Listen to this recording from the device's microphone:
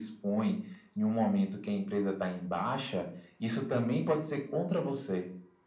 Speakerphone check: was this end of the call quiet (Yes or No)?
Yes